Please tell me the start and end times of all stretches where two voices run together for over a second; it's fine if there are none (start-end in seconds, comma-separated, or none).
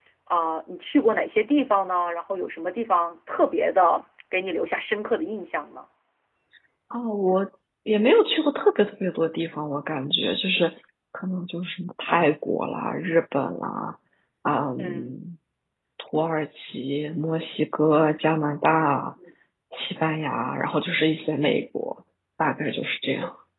none